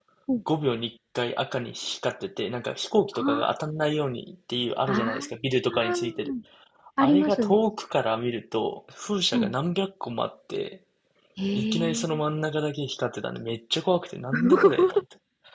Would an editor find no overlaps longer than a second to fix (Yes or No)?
No